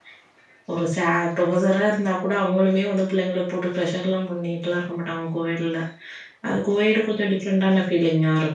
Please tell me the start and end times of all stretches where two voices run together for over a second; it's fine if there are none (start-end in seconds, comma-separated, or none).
none